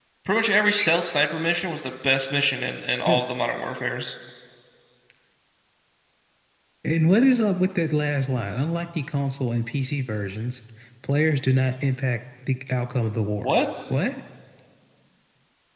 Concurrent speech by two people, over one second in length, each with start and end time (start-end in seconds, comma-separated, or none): none